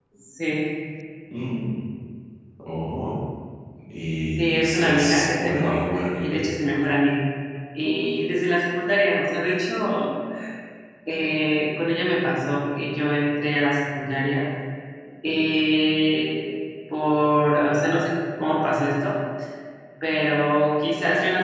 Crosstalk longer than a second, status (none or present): present